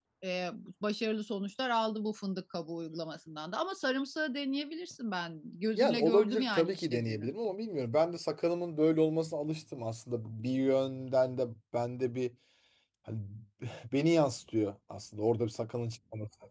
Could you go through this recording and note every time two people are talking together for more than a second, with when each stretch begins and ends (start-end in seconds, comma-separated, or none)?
5.8-7.3